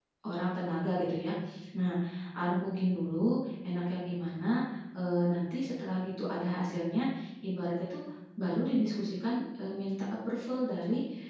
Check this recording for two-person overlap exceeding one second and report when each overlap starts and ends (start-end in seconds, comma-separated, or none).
none